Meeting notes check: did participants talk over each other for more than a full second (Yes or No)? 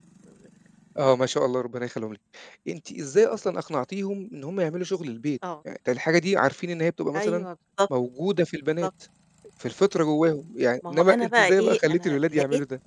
Yes